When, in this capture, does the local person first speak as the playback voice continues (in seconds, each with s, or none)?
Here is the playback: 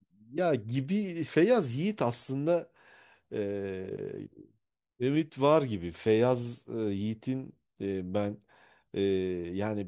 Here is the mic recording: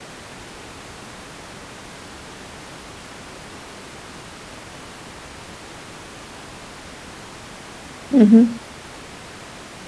8.1 s